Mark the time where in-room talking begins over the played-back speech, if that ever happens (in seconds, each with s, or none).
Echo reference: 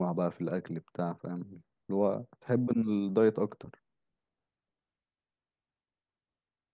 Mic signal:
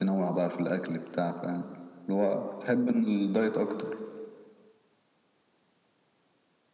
none